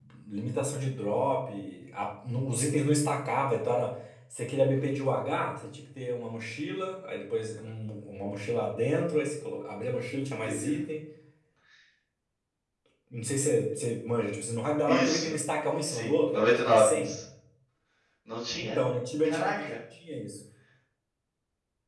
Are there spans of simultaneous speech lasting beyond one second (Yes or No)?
Yes